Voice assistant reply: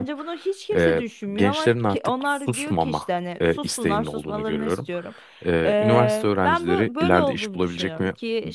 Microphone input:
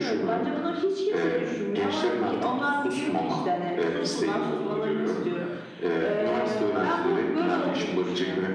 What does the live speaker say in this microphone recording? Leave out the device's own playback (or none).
none